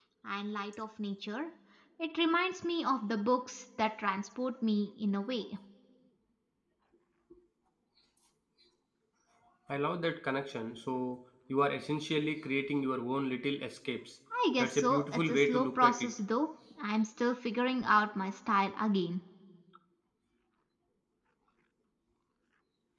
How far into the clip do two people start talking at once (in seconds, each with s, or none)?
14.6 s